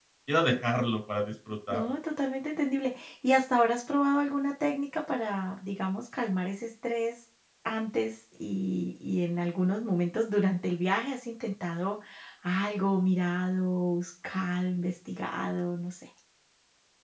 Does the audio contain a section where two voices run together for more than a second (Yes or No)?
No